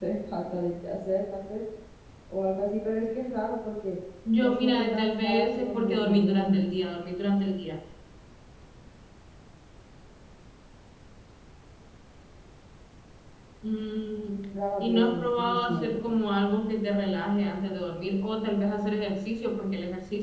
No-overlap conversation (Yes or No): No